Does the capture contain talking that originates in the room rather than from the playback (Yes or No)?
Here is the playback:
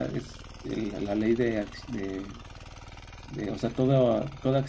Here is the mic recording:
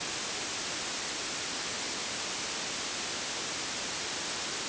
No